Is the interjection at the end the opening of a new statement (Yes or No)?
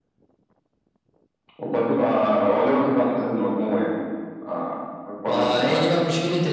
Yes